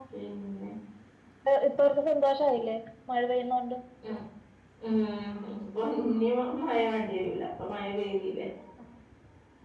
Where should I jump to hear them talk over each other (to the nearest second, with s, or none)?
none